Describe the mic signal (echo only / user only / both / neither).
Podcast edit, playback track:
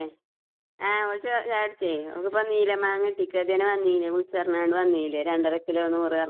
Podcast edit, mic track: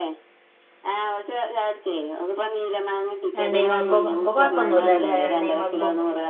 both